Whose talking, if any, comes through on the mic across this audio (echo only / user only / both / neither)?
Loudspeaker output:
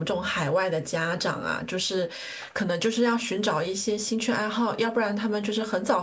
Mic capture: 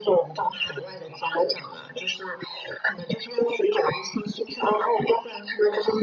echo only